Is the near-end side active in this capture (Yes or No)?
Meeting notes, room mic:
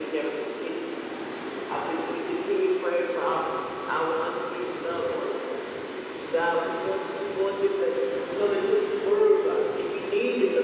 No